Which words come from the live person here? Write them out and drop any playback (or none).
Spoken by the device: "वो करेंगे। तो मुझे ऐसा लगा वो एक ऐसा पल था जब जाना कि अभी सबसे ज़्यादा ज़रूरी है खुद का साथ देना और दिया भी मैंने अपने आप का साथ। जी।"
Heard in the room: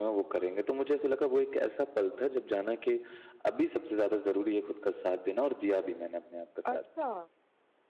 अच्छा,